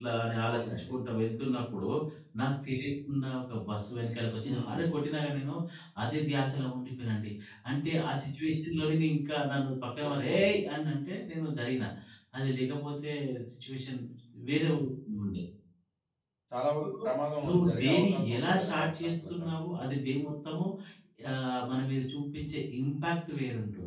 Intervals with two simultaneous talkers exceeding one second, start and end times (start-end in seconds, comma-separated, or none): 17.4-19.3